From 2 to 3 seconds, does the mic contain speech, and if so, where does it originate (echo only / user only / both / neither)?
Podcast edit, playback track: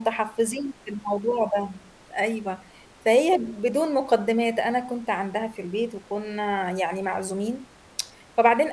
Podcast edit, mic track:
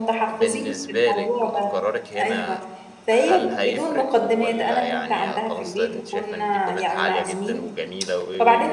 both